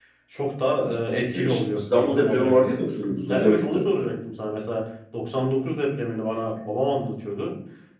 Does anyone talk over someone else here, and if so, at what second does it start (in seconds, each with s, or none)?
1.3 s